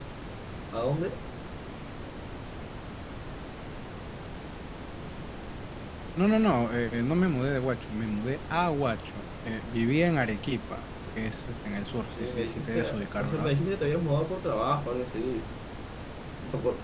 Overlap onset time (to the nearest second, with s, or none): 12 s